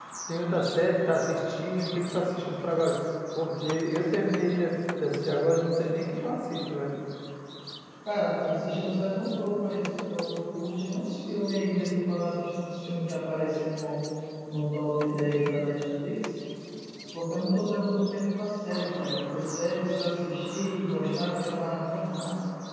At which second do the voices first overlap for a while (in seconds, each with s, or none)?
none